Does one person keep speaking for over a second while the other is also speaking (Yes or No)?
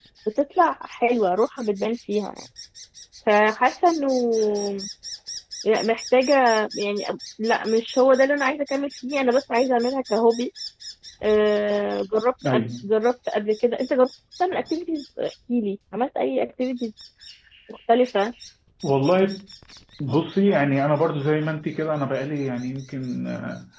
No